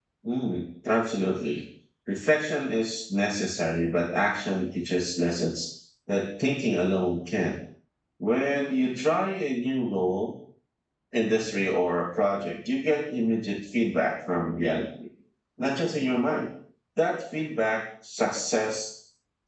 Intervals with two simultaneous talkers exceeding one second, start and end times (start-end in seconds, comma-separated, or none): none